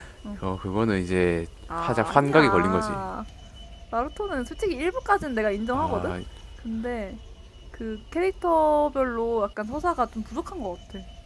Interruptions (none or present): present